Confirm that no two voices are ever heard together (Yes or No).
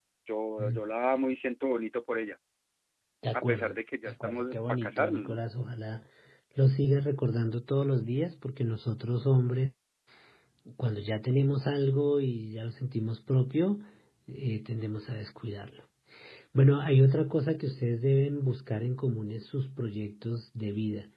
No